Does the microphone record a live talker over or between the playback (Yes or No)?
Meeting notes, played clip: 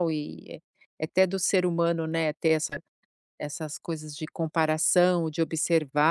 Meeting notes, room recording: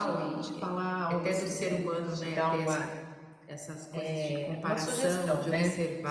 Yes